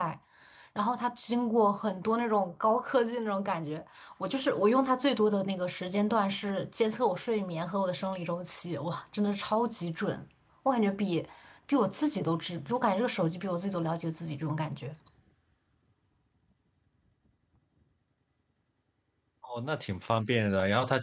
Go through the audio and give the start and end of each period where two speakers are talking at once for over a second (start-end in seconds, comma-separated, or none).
none